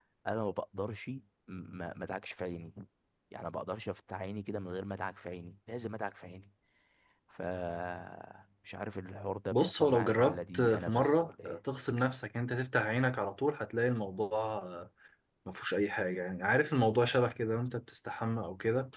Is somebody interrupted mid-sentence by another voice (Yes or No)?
Yes